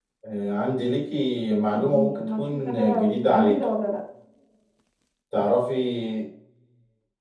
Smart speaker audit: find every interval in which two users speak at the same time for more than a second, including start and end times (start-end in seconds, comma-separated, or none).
1.7-3.6